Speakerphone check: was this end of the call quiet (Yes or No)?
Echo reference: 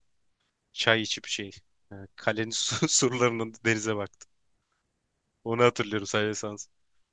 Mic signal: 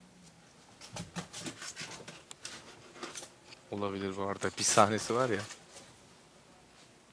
No